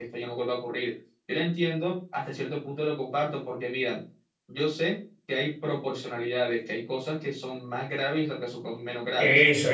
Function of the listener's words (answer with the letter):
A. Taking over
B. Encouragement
A